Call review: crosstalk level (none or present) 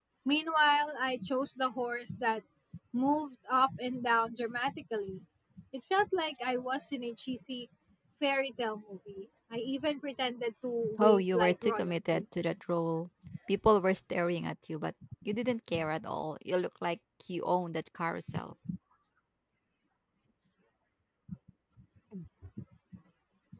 present